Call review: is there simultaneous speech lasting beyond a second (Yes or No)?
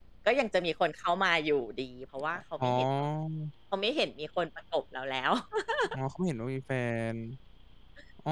No